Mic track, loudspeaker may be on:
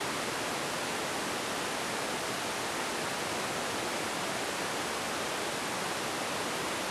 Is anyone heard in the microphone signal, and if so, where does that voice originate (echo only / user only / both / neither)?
neither